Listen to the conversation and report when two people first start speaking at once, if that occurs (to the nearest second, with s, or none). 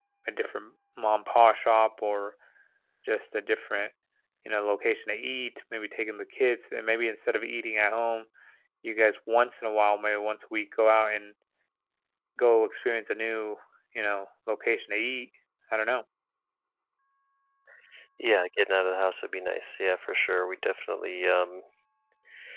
none